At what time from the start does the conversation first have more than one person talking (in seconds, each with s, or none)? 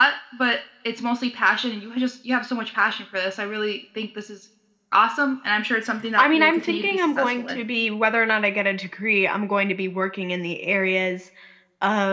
6.2 s